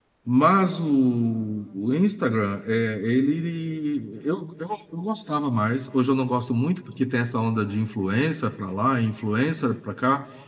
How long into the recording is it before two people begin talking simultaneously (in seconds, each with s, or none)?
none